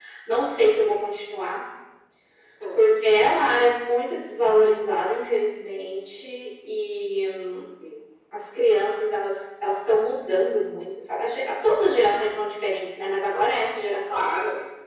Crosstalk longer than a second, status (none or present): none